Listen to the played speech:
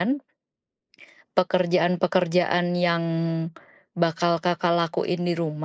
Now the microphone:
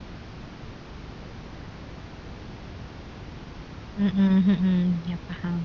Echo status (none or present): none